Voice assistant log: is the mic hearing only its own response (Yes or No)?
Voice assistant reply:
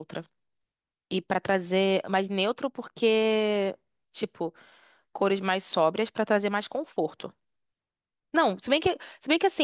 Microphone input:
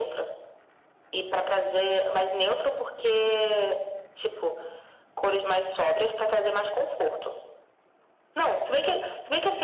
Yes